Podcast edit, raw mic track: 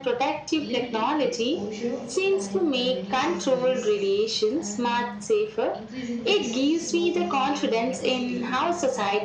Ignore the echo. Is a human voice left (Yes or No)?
Yes